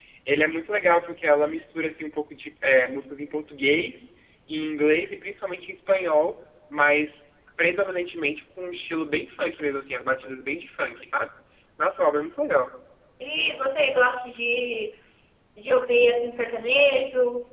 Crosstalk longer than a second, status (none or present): none